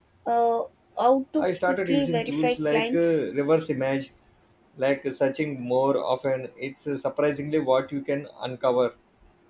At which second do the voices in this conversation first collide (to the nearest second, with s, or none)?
1 s